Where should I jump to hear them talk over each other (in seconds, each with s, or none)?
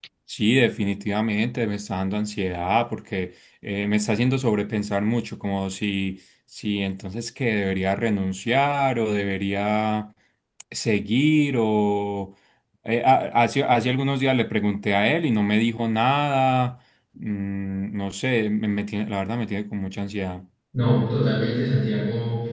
none